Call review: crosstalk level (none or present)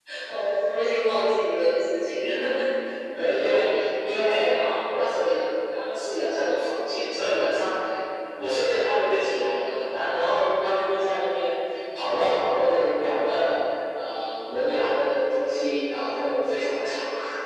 none